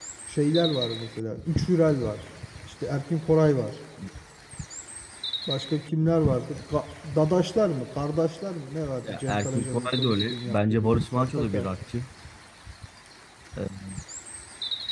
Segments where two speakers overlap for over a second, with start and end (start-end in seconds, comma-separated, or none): 9.0-11.7